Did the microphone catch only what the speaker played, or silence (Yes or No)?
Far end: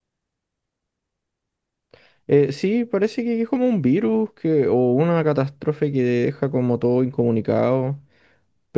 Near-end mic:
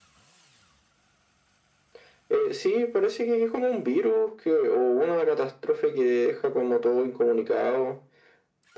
Yes